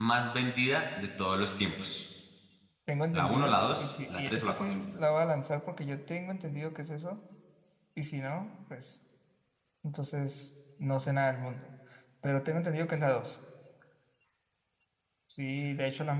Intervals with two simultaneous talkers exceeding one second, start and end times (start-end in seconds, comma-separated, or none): 3.1-4.8